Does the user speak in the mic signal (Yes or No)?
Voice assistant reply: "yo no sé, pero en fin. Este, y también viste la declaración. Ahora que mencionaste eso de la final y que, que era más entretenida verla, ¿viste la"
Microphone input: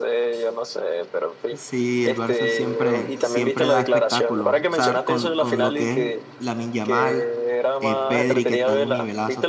Yes